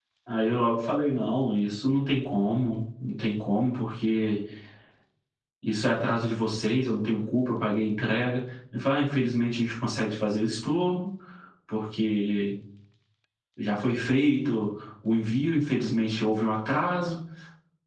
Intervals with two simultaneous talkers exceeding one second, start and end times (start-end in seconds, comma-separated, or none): none